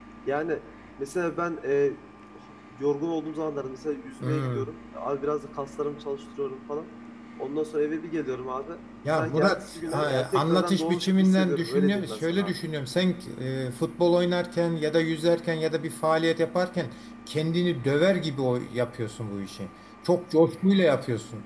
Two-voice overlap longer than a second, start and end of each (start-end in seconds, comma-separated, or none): 9.2-12.5